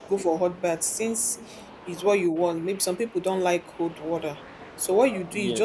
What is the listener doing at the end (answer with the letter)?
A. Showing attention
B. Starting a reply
A